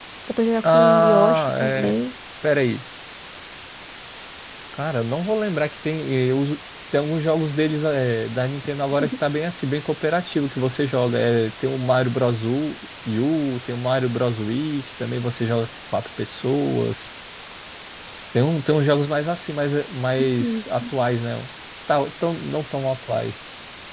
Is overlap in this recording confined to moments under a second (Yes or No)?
No